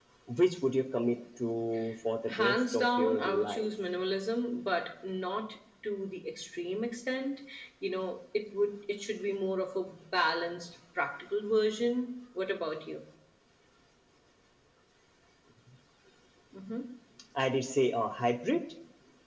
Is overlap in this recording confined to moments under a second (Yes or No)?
No